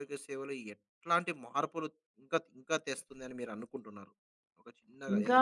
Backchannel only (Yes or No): No